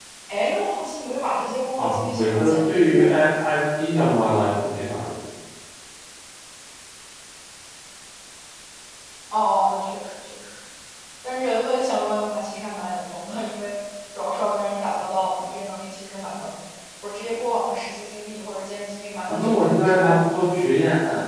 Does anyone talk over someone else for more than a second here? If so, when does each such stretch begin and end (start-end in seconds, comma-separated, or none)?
1.8-3.3, 19.3-20.6